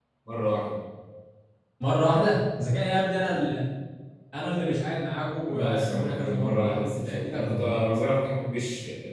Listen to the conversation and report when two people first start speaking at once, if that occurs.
5.5 s

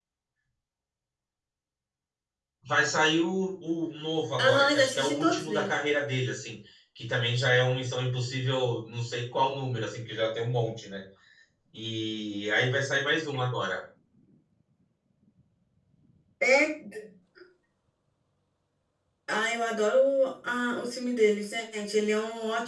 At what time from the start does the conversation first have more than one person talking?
4.4 s

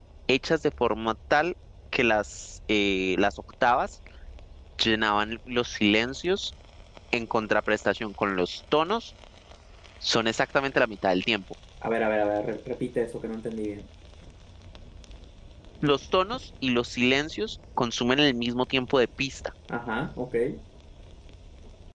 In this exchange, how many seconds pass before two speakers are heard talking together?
none

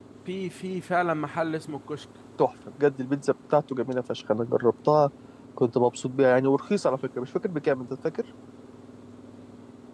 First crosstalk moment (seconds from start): none

